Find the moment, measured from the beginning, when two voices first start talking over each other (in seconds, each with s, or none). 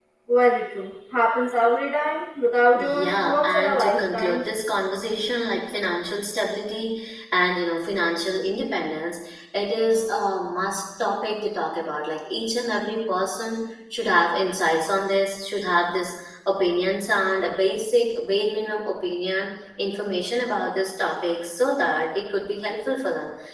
2.7 s